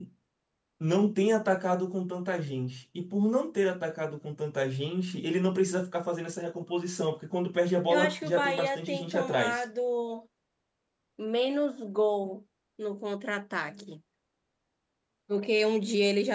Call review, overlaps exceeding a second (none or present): present